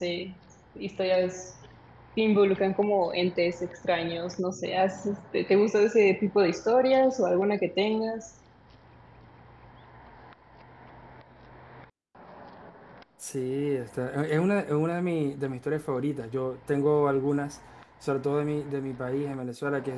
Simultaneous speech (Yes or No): No